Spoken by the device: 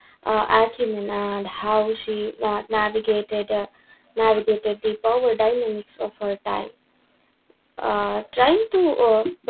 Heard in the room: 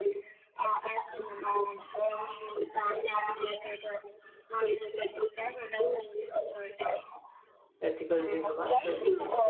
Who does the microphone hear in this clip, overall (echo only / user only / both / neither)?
both